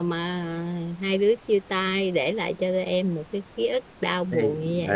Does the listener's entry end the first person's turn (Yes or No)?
Yes